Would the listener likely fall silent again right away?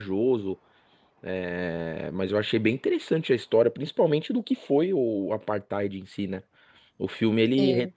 Yes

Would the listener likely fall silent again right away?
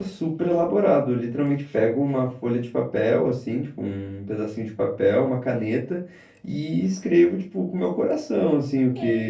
No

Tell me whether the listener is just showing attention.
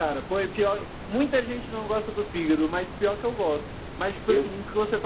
Yes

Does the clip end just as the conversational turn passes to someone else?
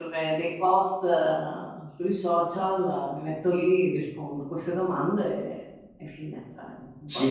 Yes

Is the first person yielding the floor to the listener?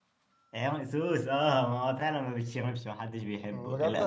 Yes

